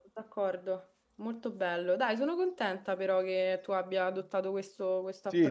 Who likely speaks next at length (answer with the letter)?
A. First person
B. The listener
B